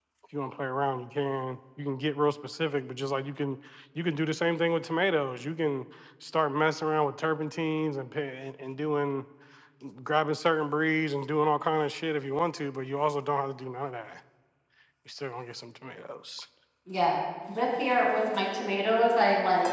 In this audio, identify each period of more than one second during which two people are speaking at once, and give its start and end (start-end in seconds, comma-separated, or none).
none